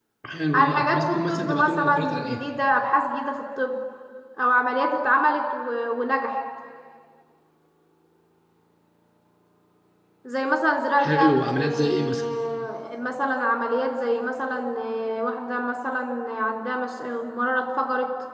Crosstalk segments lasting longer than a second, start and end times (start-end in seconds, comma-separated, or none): 0.5-2.4, 11.0-12.2